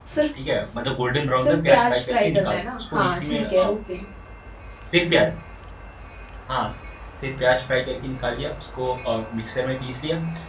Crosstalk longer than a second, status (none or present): present